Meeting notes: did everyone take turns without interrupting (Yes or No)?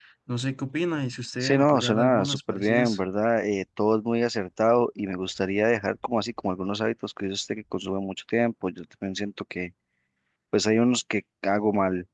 No